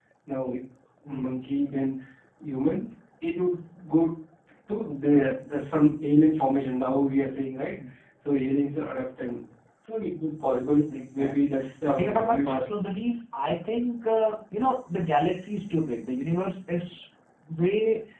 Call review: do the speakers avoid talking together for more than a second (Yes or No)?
No